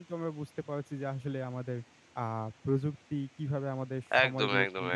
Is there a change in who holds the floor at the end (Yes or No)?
Yes